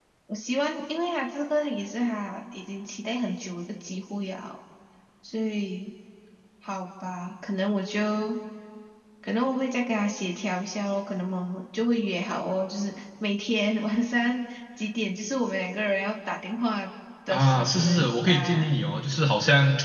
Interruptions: present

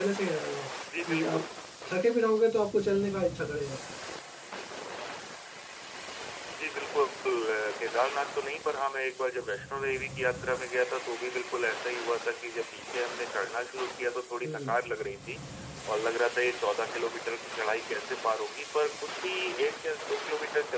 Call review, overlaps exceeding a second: none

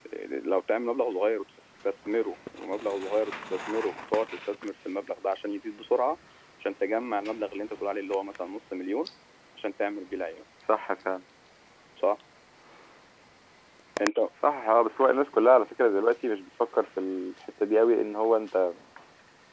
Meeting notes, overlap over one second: none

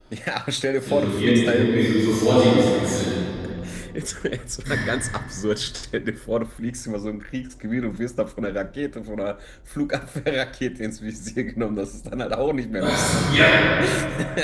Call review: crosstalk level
present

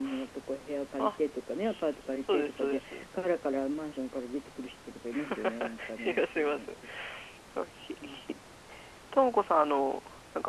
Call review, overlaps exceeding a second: present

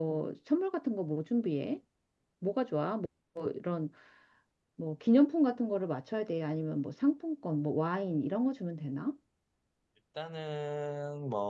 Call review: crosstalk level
none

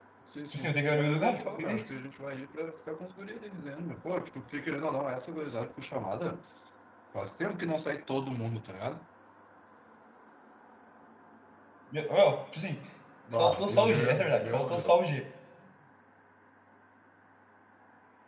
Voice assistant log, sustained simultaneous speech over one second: present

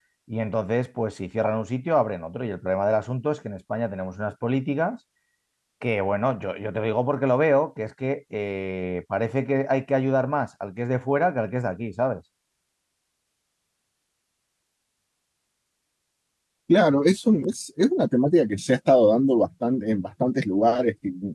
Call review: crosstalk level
none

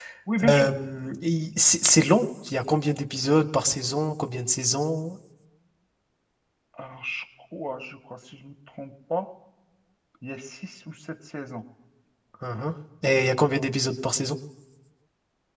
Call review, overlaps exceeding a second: none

